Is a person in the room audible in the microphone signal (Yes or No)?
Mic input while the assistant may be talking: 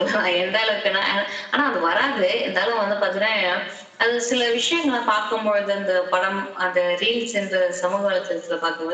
No